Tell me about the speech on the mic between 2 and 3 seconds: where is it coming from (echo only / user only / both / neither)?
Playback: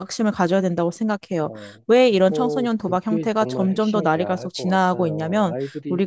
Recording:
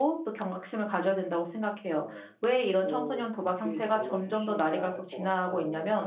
echo only